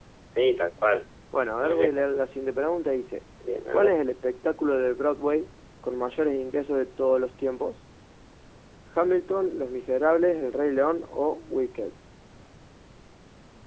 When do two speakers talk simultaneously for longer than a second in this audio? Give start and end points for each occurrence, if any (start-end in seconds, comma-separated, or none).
none